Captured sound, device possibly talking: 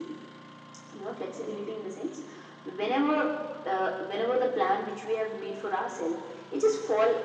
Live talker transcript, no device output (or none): none